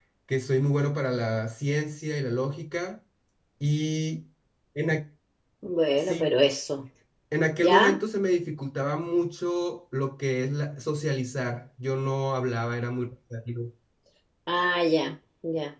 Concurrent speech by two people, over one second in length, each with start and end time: none

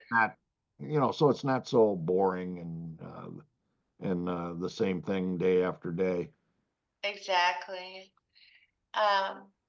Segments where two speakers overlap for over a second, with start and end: none

